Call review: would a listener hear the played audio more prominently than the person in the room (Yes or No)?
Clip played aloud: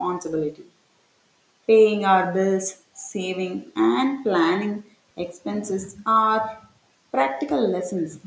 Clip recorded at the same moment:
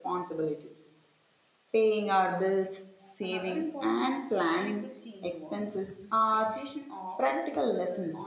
Yes